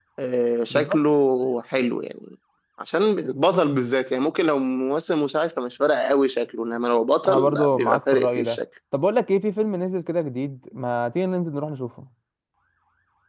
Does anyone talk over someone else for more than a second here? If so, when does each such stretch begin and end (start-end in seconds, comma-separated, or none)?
7.3-8.6